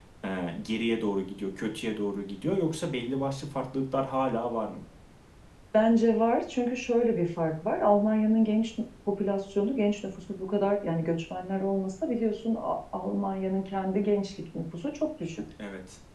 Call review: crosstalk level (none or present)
none